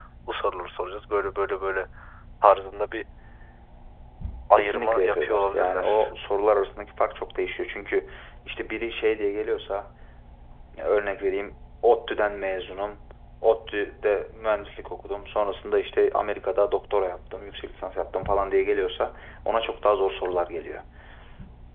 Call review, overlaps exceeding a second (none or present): present